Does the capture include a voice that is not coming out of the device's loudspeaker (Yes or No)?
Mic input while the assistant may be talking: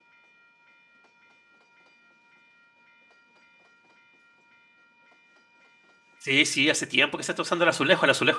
Yes